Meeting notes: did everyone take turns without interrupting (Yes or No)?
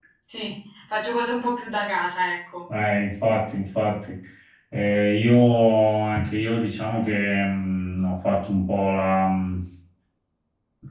Yes